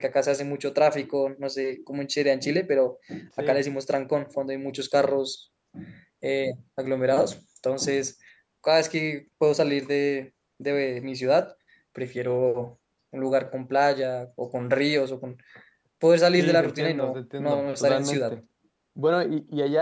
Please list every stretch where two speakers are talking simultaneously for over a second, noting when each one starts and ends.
16.4-18.4

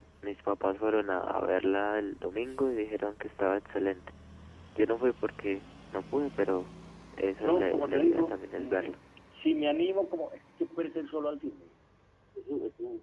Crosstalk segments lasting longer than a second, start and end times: 7.4-8.9

